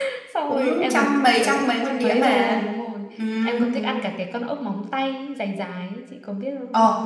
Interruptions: present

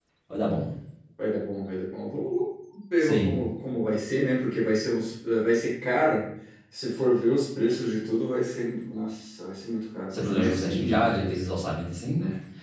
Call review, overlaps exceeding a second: present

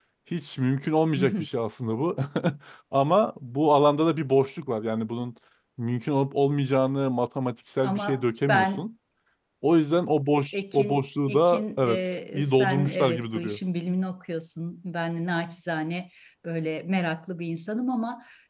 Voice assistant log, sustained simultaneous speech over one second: present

